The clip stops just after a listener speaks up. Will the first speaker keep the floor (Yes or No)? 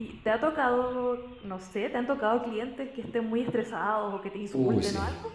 No